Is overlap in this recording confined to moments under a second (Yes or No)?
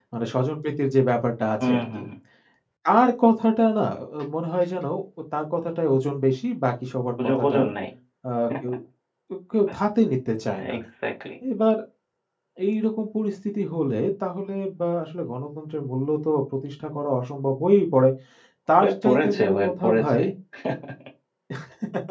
No